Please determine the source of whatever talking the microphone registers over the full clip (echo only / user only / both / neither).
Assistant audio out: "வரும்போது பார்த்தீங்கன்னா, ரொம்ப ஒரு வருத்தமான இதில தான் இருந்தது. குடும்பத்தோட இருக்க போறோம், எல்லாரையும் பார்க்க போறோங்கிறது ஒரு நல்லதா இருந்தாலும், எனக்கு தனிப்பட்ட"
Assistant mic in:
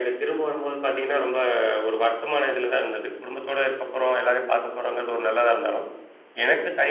echo only